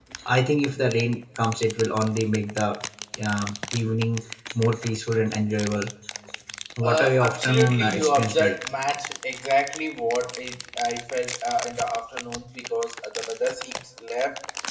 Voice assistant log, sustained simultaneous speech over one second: present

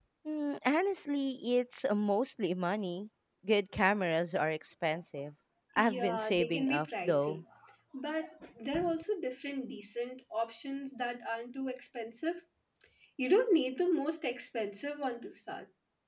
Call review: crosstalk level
present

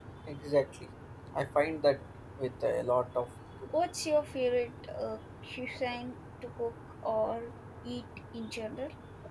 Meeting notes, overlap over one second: none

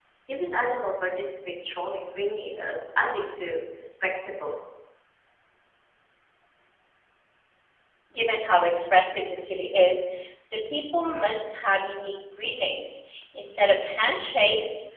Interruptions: none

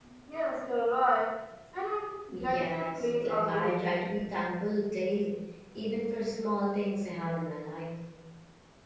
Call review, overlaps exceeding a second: present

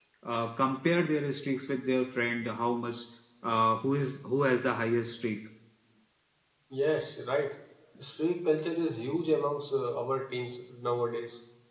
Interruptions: none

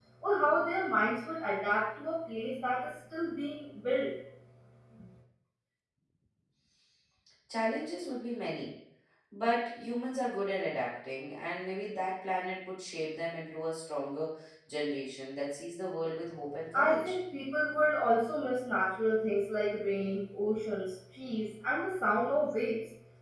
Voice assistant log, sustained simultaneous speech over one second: none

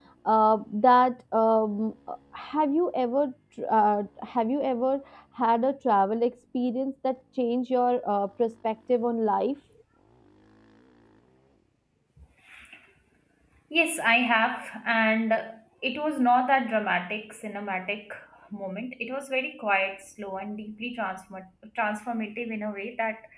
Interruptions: none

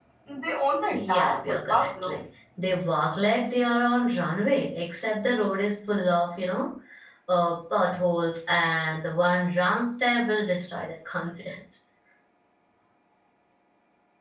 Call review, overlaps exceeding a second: present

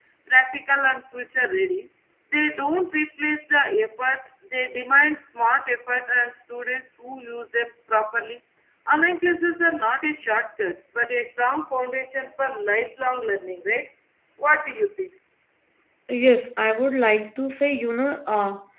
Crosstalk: none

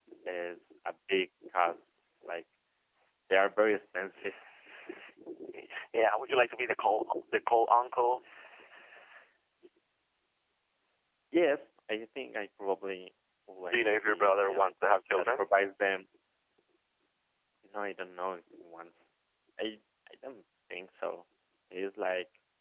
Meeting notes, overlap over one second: present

